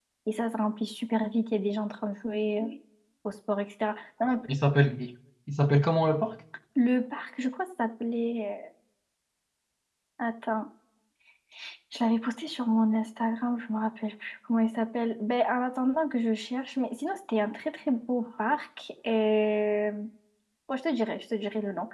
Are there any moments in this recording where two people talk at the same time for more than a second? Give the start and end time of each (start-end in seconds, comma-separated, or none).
none